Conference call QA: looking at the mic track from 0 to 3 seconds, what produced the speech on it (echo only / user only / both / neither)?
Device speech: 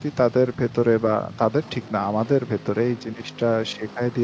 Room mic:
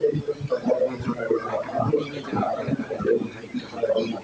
both